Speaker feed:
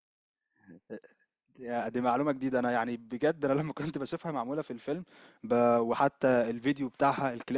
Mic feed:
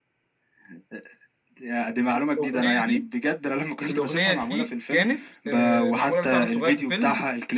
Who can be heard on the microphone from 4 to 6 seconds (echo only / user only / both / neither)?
both